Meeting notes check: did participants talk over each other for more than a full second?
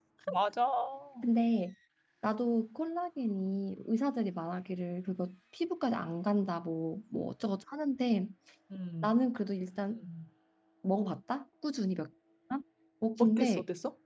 No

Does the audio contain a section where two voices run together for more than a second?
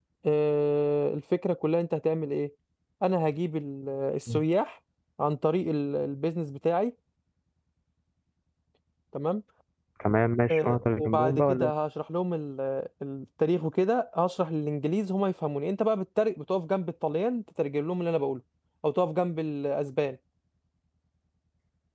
Yes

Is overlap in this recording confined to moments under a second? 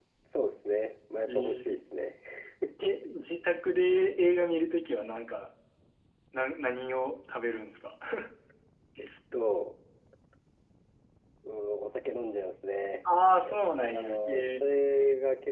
No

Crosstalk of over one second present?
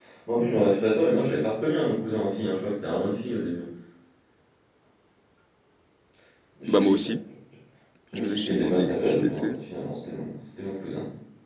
Yes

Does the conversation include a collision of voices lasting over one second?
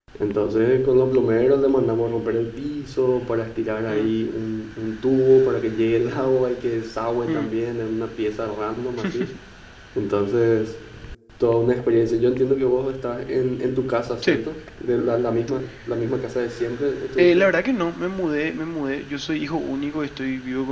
No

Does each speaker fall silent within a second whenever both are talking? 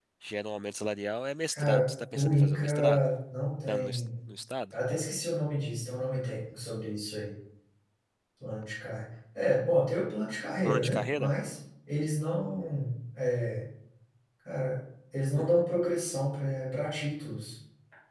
No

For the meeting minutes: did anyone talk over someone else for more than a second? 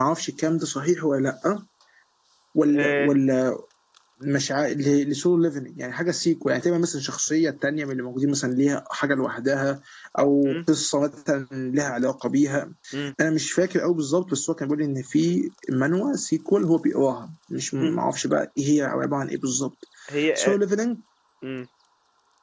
No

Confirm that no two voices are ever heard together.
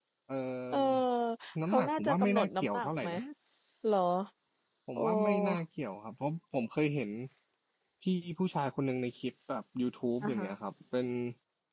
No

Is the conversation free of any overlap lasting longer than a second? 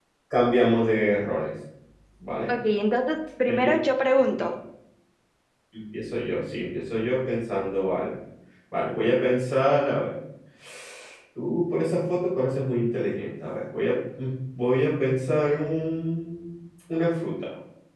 Yes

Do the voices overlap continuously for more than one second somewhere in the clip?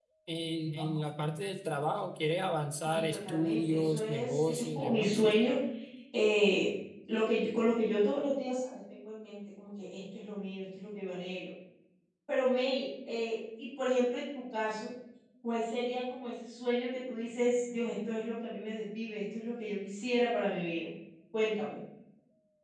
Yes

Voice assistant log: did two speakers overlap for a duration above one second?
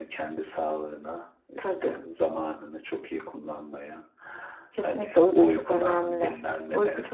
Yes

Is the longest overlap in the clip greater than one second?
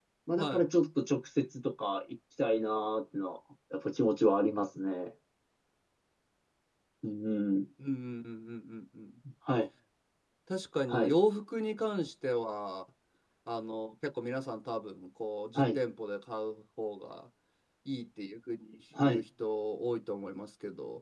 No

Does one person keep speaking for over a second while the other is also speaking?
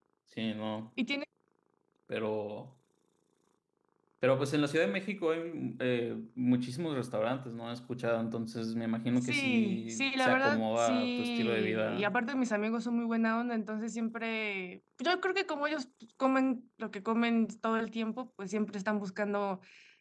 Yes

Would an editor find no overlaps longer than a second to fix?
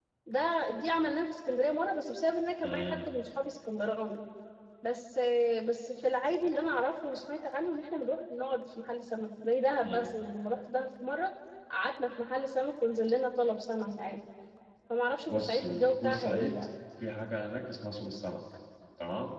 No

